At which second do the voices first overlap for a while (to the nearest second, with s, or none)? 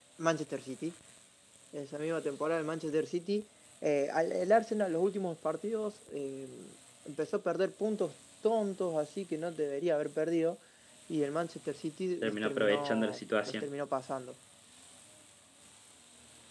12 s